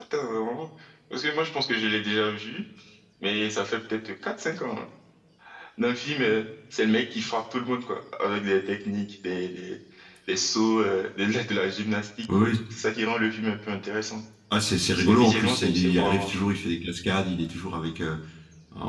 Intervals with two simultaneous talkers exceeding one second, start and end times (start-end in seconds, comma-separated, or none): 14.9-16.3